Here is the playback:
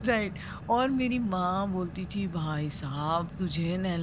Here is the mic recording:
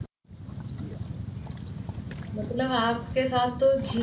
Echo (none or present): none